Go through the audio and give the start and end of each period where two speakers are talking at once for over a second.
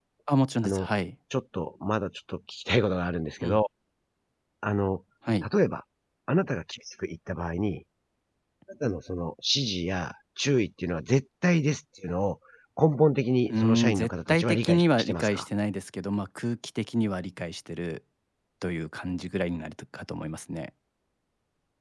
13.5-15.5

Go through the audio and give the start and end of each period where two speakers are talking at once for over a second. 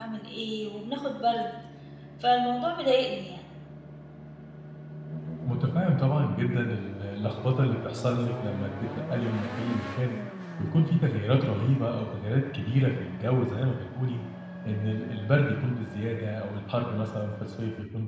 none

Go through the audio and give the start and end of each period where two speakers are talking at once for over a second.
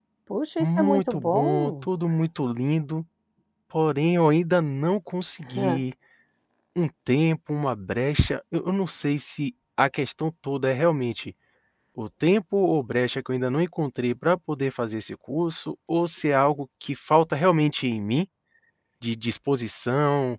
0.6-1.9

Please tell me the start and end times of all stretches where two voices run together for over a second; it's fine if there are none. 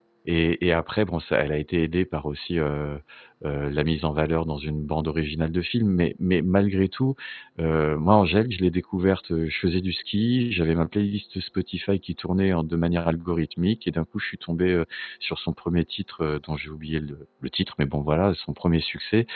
none

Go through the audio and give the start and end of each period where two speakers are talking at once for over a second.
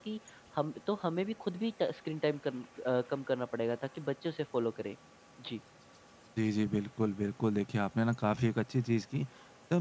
none

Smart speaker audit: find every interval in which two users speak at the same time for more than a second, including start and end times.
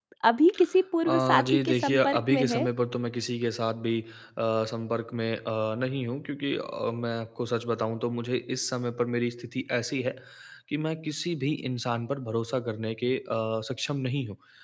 1.1-2.7

